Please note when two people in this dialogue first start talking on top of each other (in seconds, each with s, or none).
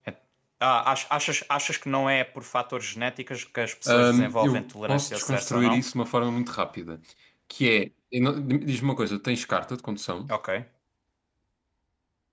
3.9 s